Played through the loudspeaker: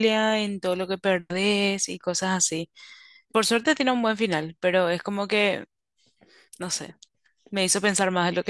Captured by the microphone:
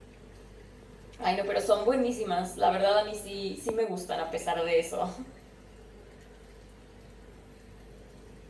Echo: none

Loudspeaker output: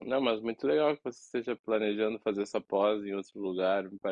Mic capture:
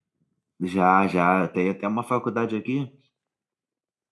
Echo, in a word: none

